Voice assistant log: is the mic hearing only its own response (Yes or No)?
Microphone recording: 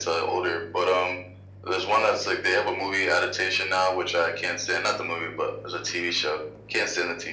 Yes